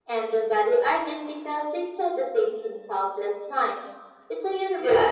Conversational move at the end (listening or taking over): taking over